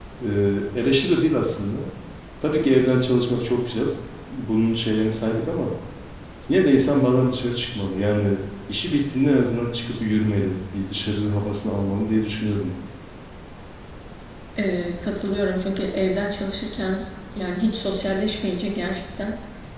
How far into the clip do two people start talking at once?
none

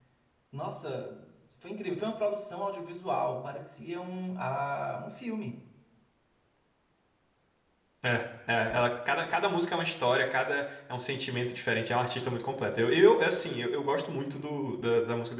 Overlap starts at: none

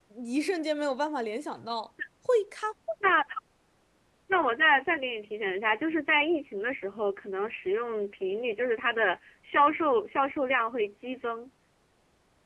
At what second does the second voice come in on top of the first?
none

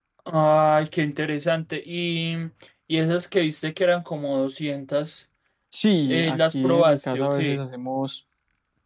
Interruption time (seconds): 6.0 s

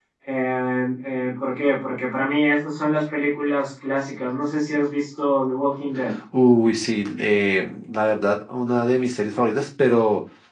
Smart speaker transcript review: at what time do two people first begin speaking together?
none

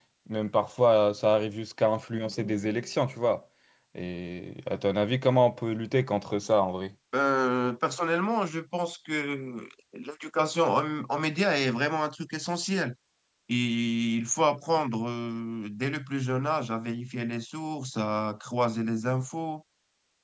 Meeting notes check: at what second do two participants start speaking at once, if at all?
none

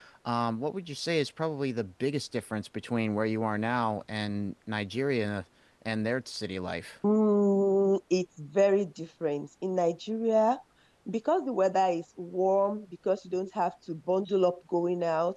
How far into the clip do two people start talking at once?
none

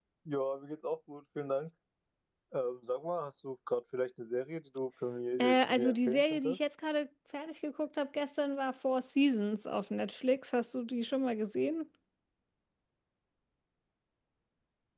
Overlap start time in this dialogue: 5.4 s

